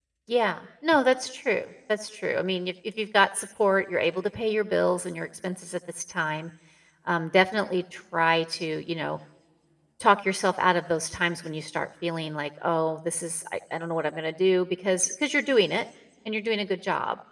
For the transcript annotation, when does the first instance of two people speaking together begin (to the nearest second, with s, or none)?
none